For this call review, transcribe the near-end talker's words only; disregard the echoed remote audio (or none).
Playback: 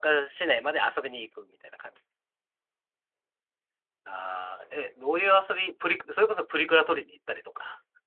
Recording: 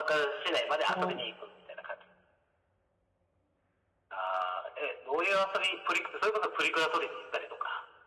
あの